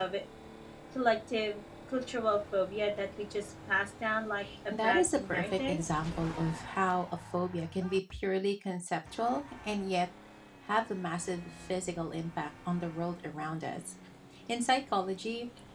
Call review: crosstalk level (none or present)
present